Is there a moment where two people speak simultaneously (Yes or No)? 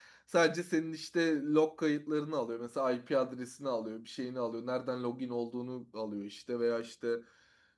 No